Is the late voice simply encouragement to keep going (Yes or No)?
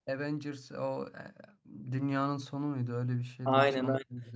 No